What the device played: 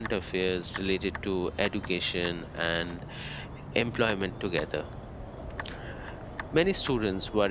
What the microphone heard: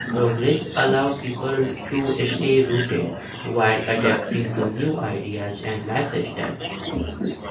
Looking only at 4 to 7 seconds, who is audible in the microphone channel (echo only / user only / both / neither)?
both